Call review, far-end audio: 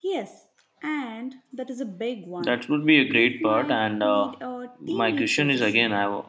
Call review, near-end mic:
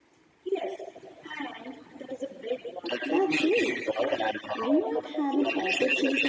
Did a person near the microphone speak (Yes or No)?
Yes